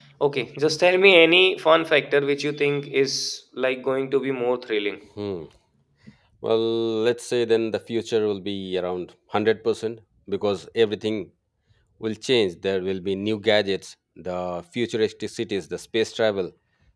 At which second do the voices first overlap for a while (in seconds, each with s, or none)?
none